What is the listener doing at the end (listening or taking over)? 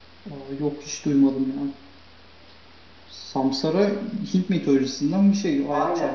taking over